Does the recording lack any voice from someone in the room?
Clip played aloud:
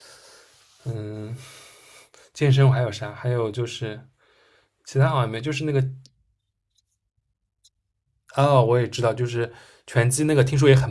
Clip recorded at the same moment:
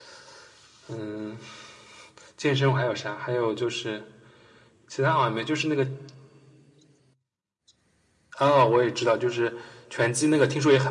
Yes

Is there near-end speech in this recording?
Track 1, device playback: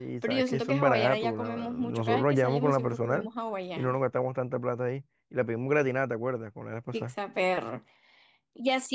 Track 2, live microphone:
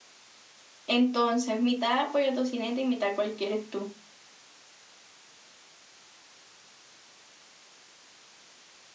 Yes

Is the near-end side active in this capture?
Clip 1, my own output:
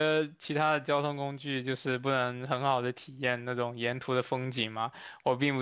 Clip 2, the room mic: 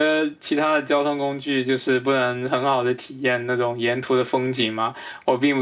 No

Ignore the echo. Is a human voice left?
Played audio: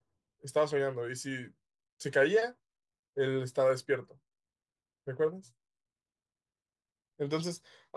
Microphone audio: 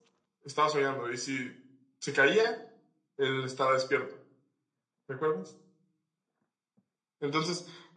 No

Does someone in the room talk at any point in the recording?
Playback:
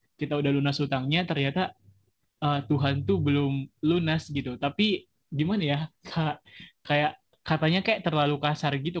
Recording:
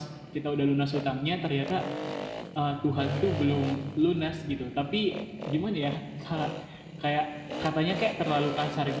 No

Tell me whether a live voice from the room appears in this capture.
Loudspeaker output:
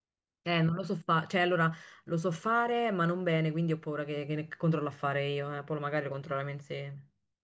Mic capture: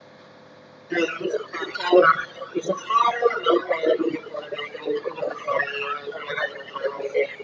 No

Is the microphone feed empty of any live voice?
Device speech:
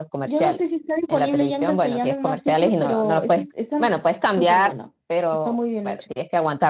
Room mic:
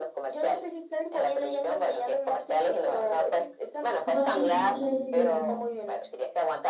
No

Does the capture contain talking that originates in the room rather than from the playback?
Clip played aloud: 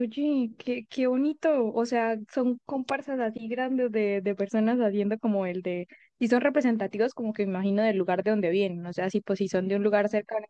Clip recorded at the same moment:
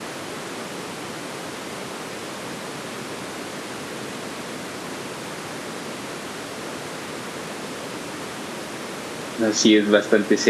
Yes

